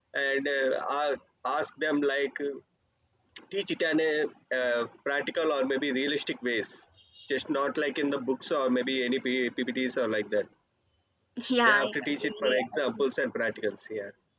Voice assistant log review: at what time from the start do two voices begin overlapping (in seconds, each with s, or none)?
11.6 s